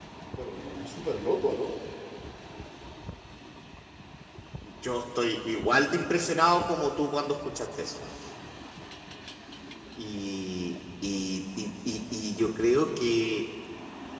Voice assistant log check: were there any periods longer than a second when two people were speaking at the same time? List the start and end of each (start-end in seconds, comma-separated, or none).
none